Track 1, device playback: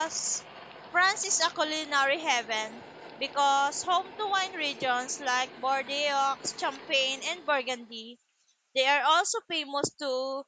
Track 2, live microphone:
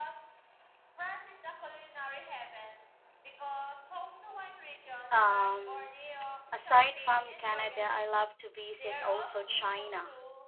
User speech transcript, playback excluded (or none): Um, aside from Canada, I love to visit also China.